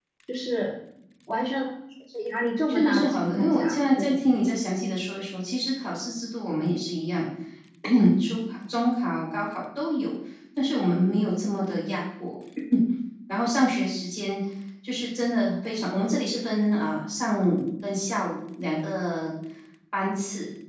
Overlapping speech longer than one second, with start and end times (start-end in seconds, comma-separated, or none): 2.7-4.2